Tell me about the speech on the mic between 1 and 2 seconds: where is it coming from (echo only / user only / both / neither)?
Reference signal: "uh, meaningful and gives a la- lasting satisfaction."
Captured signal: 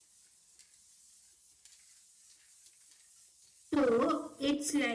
neither